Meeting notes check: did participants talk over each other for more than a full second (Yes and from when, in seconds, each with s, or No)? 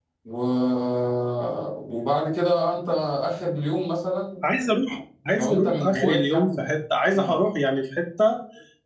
Yes, from 5.3 s